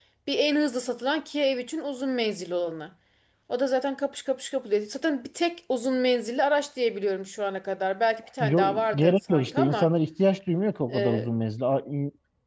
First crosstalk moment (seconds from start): 8.4 s

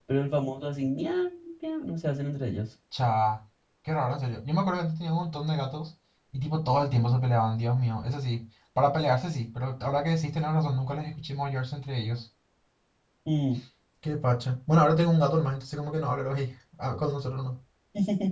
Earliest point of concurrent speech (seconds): none

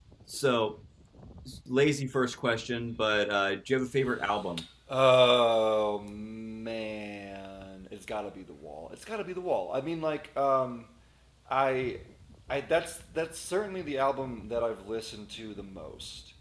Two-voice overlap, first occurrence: none

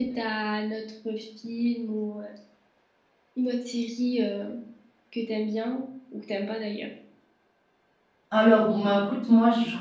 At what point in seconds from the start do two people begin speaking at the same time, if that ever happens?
none

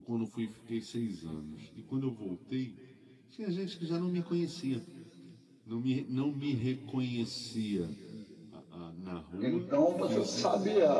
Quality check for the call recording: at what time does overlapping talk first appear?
9.4 s

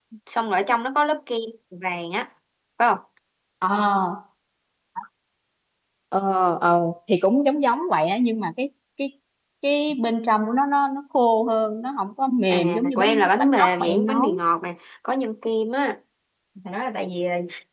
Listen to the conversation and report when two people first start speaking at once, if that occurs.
12.5 s

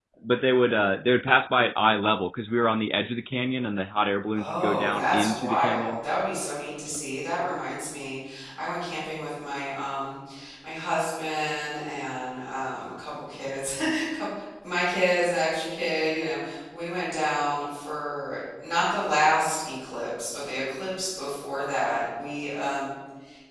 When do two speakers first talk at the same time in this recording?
4.3 s

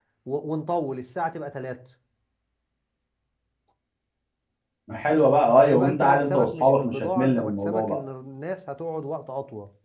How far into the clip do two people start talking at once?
5.6 s

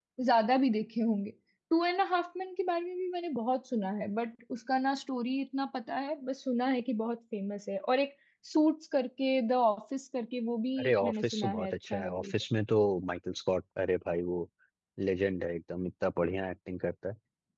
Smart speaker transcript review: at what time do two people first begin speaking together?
10.8 s

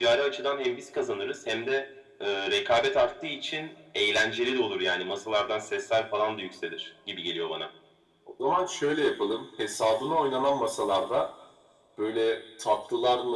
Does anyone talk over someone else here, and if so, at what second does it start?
none

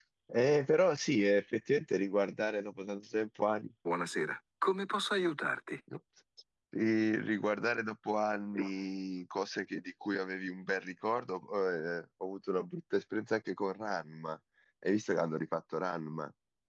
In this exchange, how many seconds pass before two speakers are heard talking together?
none

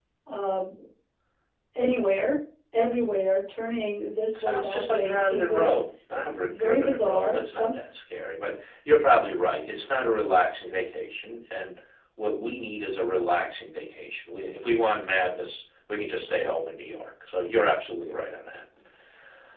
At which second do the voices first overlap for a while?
4.4 s

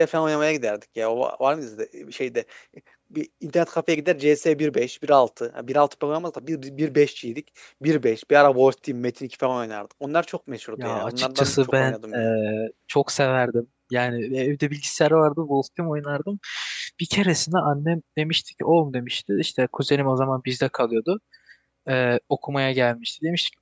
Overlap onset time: 10.8 s

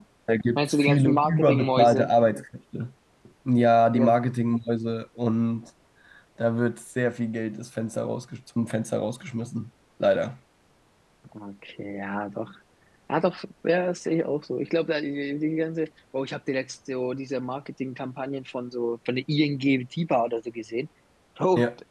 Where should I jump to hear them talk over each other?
0.6 s

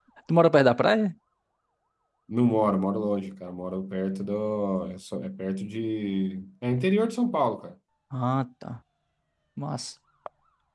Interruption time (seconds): none

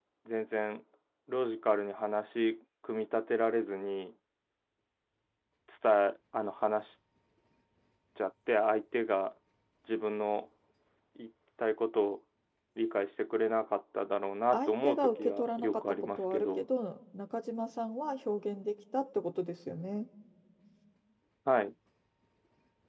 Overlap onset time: 14.5 s

